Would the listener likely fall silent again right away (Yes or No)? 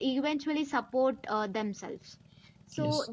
Yes